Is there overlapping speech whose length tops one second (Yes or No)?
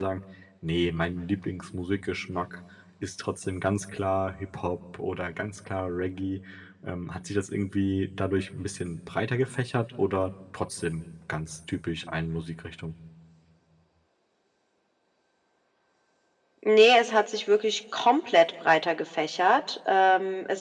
No